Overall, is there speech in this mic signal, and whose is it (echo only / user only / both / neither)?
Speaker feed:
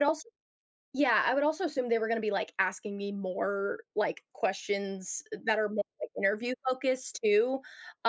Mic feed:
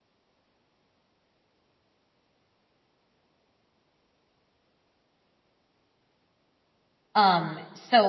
user only